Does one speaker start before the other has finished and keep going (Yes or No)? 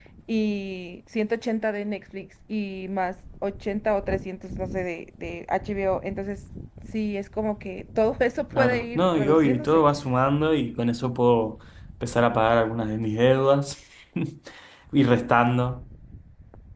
Yes